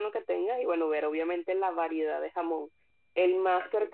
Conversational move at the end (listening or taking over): listening